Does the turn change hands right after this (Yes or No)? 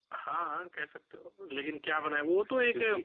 No